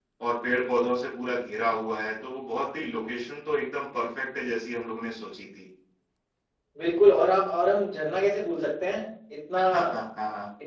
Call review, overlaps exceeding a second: none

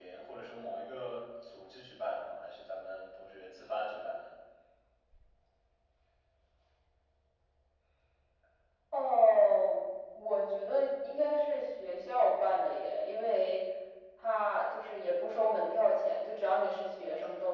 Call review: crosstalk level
none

